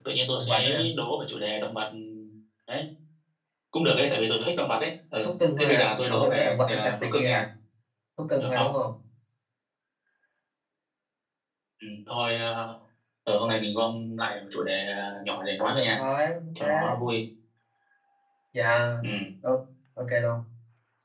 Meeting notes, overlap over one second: present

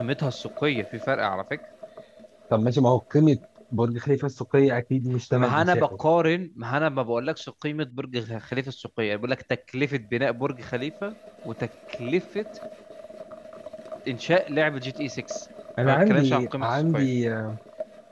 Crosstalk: present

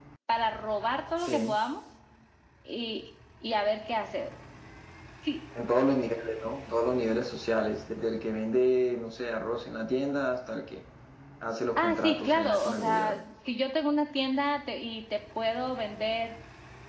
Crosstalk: present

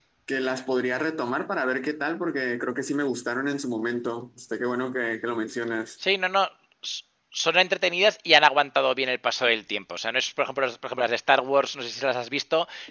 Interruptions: none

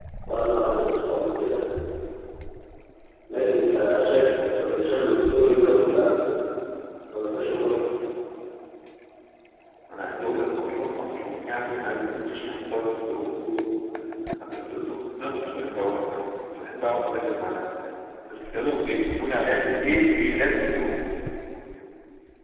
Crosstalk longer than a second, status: none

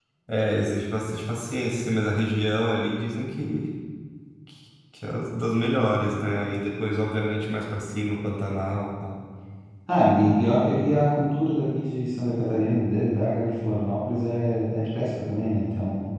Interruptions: none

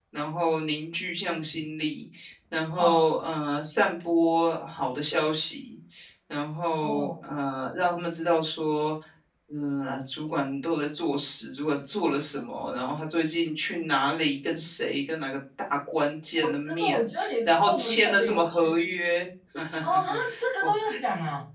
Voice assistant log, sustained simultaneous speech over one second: present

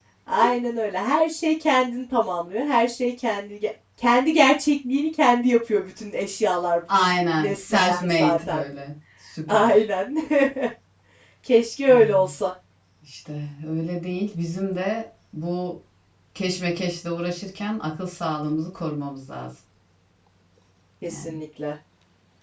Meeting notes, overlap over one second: present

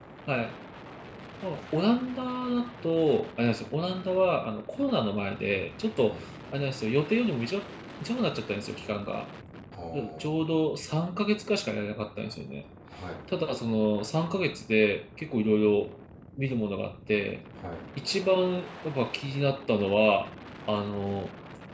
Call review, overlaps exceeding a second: none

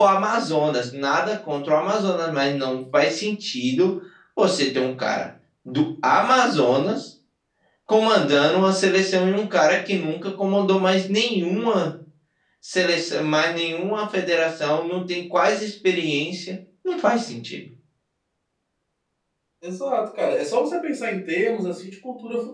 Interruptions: none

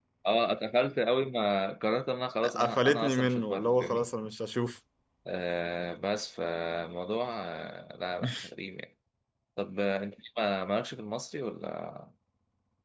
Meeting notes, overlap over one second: present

